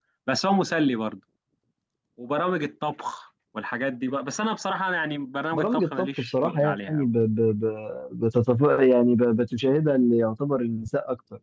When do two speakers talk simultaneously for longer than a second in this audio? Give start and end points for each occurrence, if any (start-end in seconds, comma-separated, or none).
5.5-7.0